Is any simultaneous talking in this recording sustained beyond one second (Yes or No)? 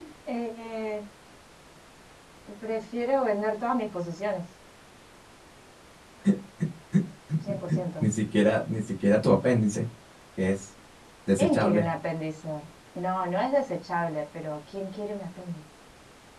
No